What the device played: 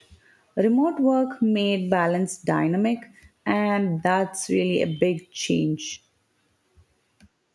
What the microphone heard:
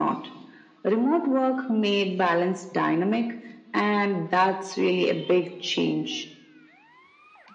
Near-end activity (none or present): none